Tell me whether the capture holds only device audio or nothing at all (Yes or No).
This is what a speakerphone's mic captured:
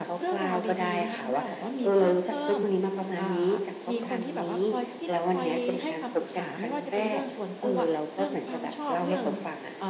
Yes